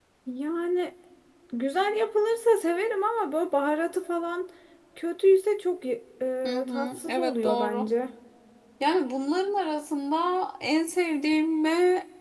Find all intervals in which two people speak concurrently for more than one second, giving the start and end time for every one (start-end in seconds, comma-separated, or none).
6.4-7.9